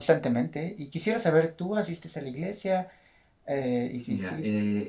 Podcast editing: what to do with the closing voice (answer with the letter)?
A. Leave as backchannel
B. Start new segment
B